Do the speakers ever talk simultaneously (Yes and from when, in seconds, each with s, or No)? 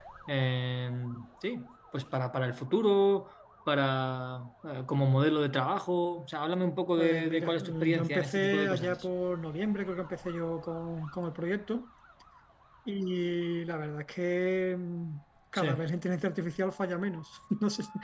Yes, from 7.0 s